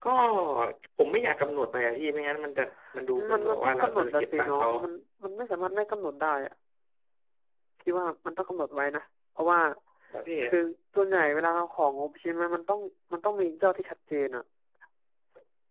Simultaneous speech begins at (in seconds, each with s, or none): 3.1 s